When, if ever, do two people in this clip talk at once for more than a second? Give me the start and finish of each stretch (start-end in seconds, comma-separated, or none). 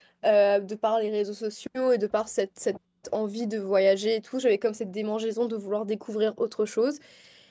none